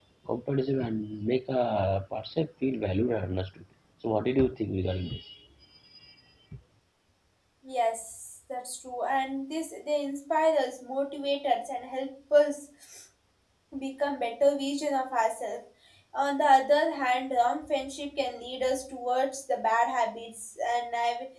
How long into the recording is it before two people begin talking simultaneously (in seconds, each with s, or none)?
none